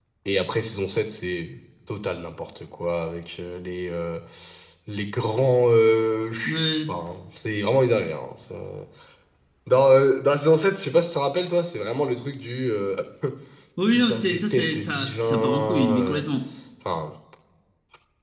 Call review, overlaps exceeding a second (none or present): present